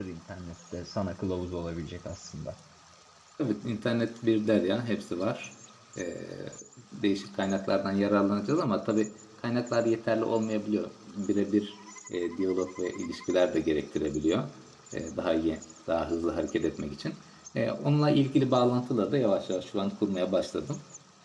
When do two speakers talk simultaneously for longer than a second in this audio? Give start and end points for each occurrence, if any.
none

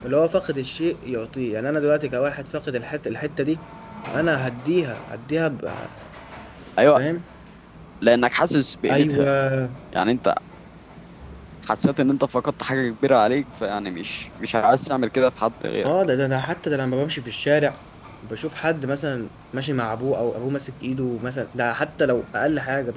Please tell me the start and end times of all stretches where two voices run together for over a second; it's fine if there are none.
none

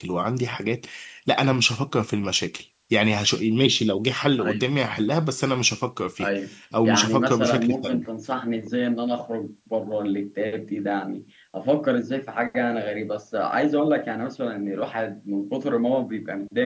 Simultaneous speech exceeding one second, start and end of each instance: 6.8-8.0

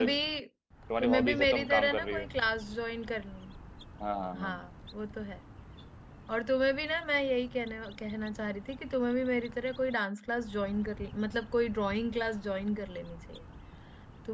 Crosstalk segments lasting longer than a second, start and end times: 1.0-2.2

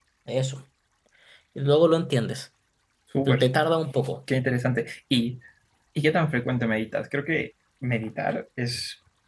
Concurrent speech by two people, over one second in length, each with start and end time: none

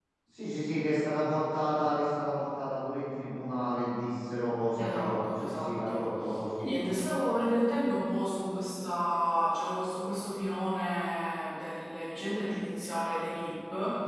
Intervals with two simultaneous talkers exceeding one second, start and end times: 4.8-6.1

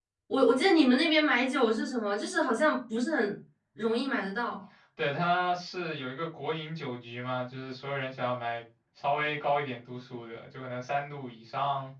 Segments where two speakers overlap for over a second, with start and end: none

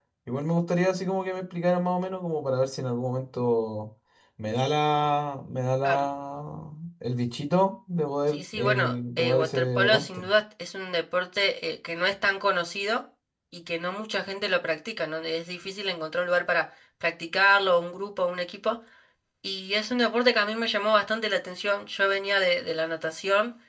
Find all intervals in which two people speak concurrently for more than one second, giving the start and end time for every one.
8.3-10.2

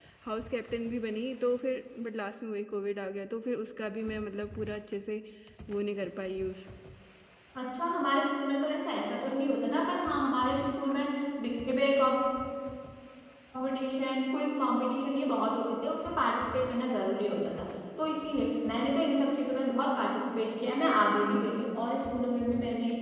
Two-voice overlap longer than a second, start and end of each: none

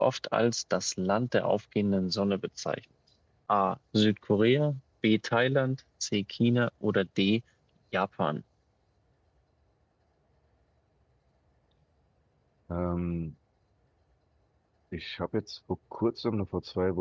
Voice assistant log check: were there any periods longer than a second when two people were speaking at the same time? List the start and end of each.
none

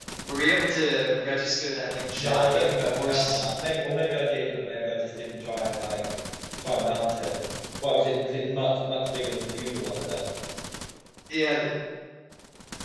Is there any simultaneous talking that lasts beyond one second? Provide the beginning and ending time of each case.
2.2-3.4

